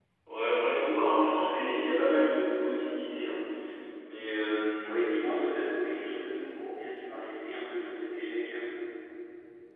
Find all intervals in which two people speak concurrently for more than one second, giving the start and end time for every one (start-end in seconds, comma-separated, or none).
none